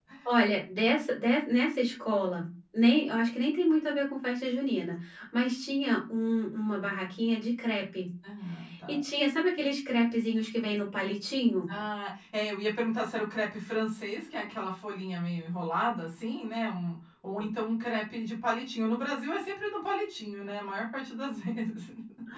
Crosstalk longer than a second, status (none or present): none